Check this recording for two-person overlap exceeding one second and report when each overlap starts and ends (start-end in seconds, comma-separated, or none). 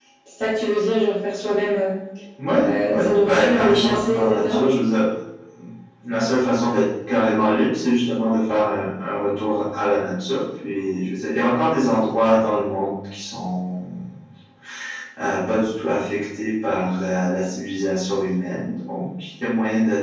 2.6-4.6